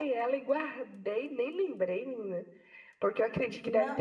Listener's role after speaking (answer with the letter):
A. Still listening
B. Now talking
A